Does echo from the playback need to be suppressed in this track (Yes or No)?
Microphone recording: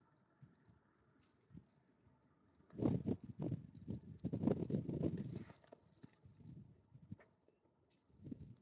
No